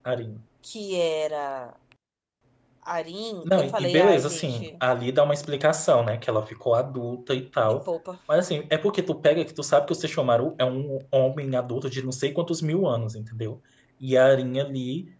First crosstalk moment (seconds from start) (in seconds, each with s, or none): 3.4 s